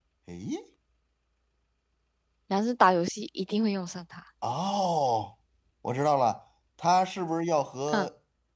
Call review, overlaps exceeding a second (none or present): none